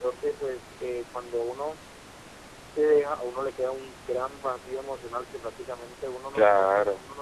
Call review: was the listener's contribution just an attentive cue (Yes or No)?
Yes